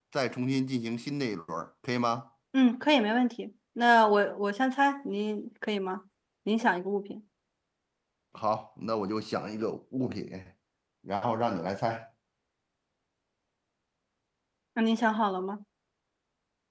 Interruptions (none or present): none